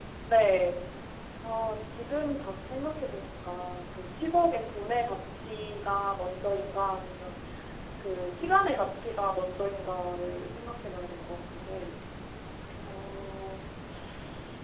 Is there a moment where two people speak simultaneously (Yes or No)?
No